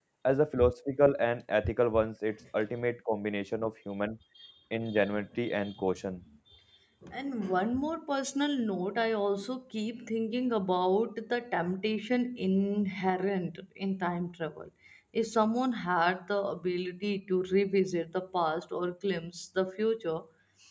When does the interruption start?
none

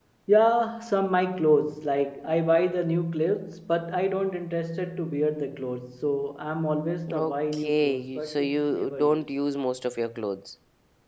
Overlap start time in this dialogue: 7.1 s

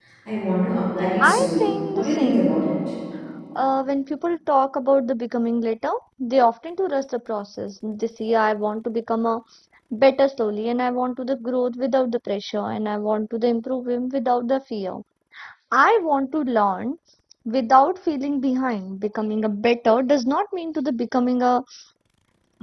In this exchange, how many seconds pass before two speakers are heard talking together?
1.2 s

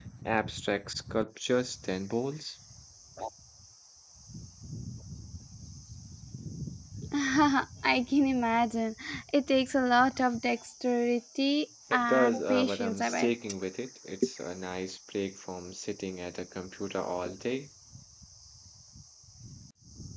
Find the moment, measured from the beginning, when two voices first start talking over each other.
11.9 s

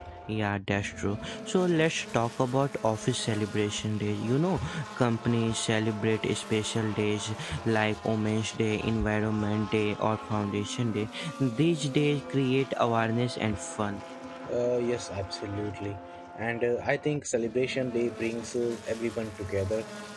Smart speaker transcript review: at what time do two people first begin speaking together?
none

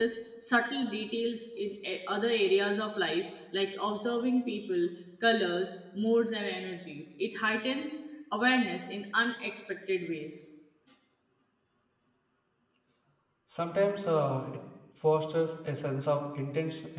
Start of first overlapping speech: none

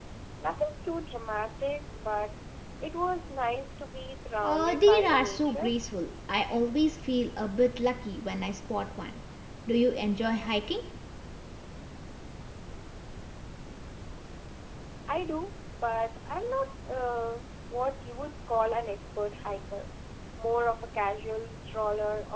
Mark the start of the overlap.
4.4 s

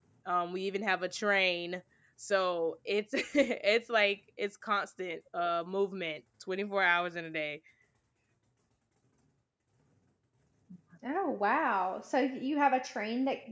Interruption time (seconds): none

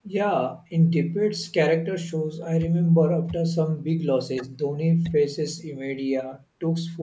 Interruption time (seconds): none

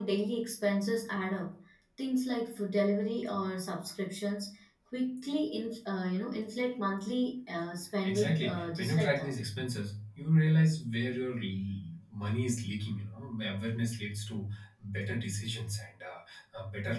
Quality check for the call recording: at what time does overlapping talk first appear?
8.0 s

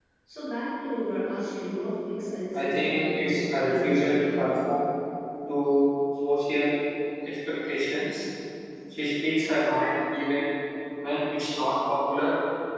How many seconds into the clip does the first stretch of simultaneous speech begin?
2.5 s

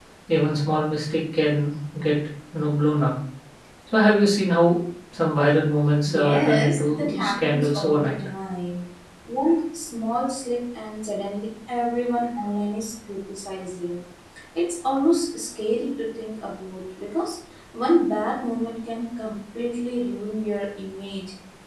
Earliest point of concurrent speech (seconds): 6.1 s

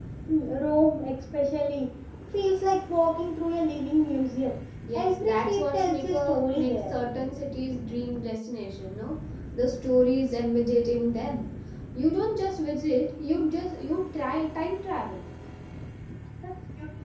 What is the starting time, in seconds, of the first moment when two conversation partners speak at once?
4.9 s

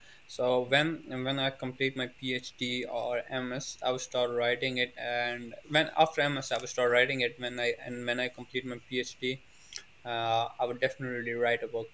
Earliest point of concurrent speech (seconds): none

